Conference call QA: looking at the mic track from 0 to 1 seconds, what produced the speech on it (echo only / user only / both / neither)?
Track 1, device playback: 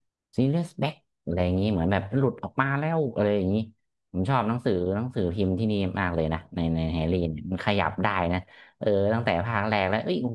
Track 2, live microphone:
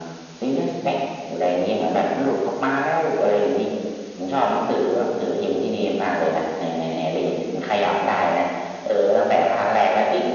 echo only